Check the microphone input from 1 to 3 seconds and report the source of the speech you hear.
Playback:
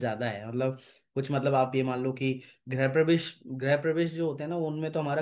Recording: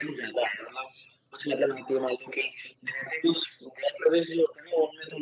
echo only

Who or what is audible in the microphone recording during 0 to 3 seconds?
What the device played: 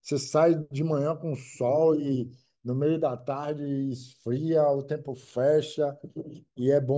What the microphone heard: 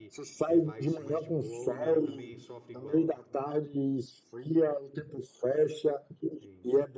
both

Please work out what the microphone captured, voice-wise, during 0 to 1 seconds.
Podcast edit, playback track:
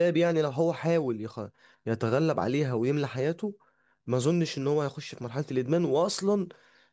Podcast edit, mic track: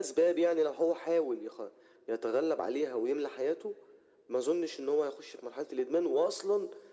echo only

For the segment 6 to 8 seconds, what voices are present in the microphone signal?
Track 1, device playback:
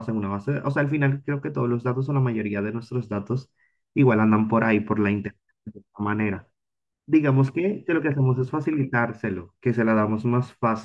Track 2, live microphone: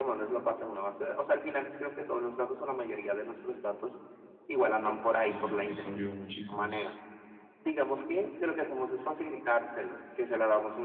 both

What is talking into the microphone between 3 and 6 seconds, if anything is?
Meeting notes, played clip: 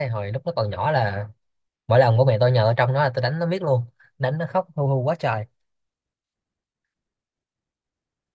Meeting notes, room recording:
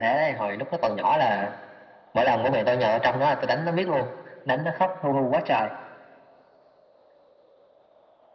echo only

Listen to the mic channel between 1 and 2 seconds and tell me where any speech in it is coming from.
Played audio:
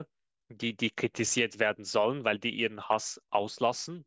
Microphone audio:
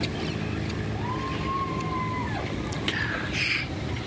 neither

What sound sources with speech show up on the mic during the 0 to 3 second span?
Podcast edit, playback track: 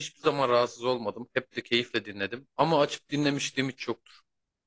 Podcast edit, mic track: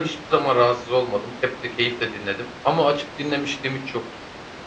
echo only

